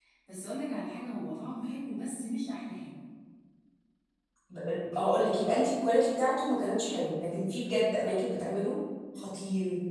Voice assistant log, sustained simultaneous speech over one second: none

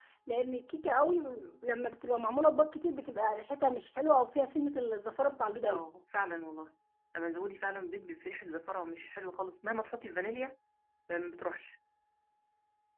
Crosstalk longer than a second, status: none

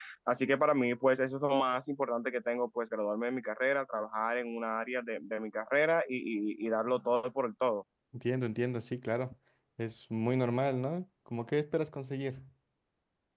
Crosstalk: none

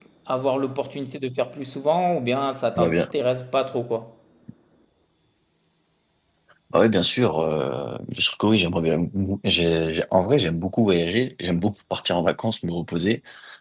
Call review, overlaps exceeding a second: none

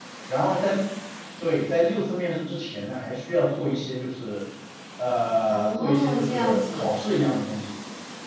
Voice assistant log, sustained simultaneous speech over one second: present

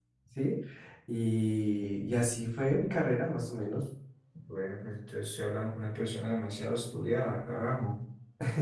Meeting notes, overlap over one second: none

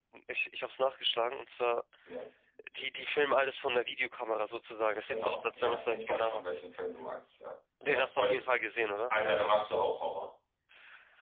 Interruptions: present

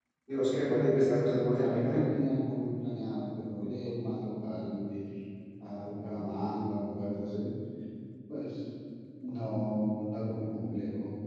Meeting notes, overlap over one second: none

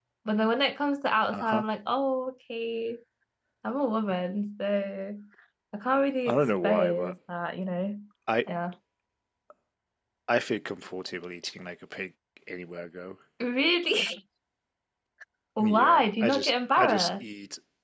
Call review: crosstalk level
present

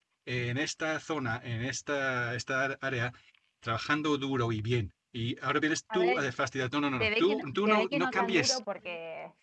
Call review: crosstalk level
present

